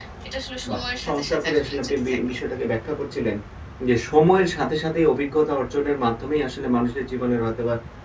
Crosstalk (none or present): present